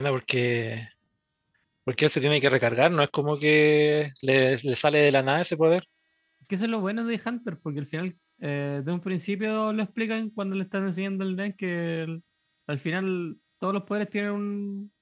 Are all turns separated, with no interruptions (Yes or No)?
Yes